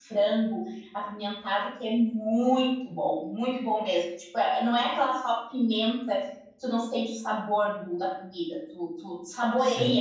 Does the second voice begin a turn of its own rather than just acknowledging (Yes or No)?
Yes